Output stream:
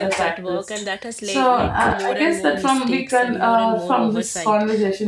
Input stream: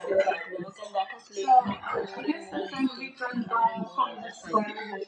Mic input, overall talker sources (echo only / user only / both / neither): echo only